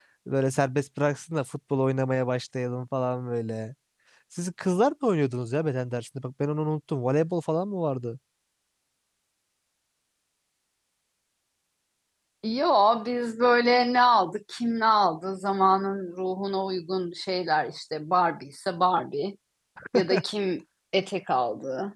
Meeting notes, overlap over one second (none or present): none